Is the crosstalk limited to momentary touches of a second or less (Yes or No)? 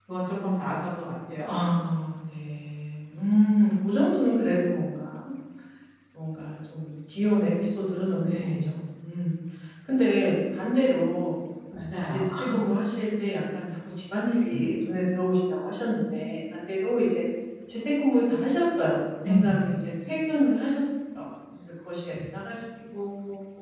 Yes